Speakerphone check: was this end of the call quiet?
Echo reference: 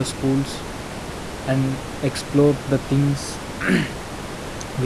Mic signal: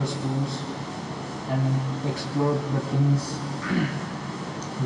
Yes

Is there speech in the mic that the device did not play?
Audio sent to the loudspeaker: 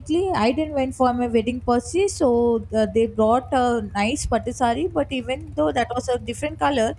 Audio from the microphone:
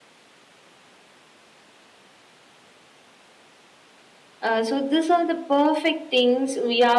Yes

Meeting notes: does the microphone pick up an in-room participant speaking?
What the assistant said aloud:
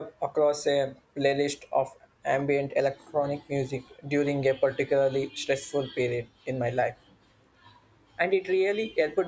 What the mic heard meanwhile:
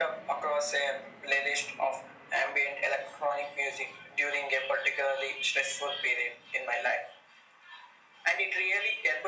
No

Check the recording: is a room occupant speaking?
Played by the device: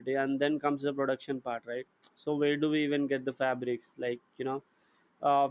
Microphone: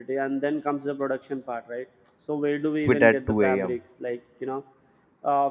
Yes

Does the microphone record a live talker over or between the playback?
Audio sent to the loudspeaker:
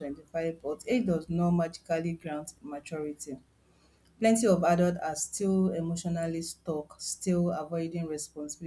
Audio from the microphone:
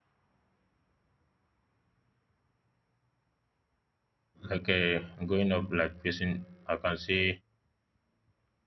Yes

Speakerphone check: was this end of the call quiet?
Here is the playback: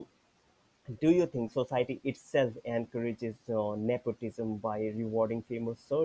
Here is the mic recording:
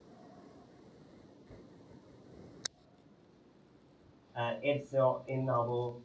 No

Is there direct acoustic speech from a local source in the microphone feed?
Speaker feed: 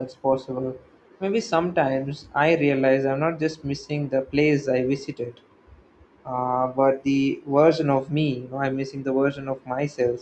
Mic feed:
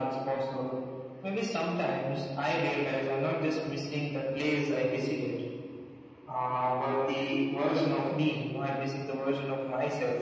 No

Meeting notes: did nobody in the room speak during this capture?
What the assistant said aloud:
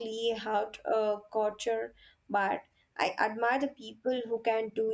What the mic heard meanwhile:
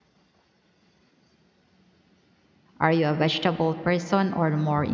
No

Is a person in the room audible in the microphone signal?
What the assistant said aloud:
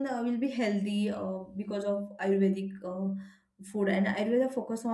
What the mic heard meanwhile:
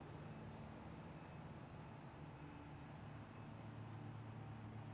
No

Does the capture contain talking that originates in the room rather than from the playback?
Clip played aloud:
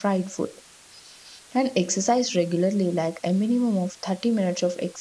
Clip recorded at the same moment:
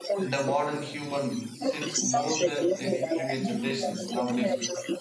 Yes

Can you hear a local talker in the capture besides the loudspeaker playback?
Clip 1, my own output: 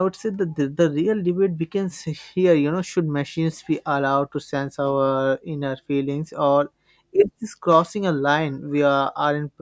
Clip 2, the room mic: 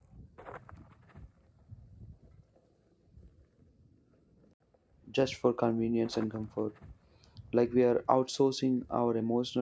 Yes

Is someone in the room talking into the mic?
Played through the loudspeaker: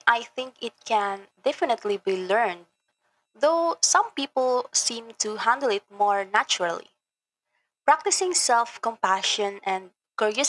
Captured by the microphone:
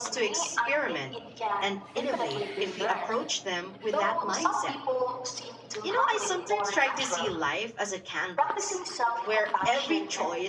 Yes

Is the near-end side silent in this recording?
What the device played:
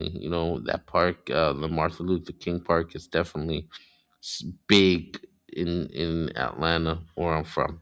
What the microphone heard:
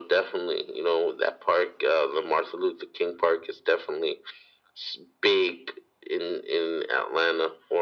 Yes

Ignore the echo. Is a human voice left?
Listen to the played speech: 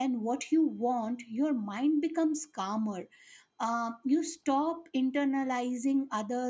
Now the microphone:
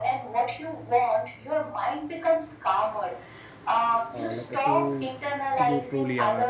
Yes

